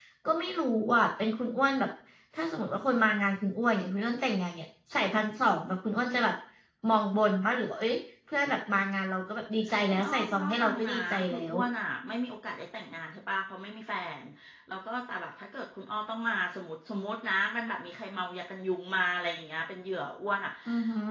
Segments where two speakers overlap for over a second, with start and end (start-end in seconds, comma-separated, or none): 9.9-11.6